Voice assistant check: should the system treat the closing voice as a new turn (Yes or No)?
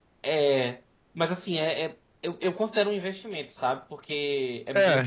No